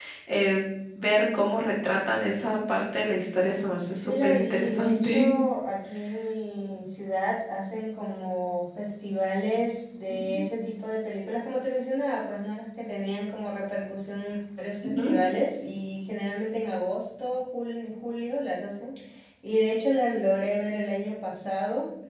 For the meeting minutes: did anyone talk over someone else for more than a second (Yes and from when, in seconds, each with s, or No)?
Yes, from 3.9 s